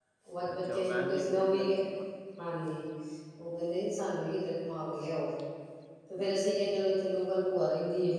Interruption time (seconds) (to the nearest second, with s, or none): 1 s